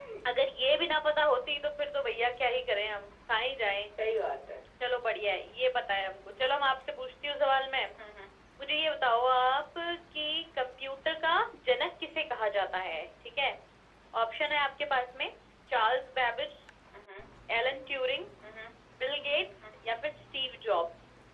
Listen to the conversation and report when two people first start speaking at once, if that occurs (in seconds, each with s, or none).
none